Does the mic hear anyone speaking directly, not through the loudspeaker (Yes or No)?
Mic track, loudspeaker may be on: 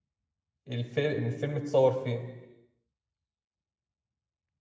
Yes